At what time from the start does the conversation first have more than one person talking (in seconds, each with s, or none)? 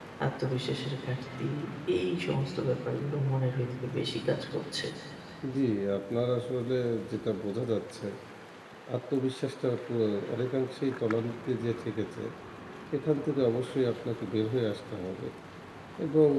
none